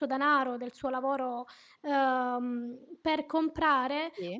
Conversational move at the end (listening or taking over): listening